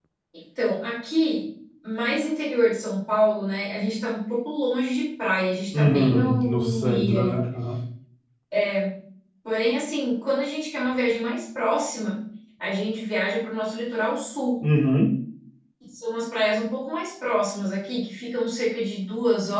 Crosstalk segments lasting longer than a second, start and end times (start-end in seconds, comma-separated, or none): 5.7-7.4